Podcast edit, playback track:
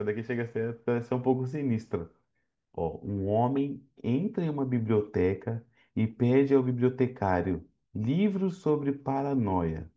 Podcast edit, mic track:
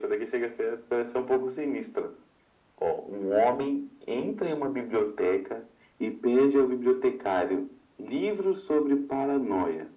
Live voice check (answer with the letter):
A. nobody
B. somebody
A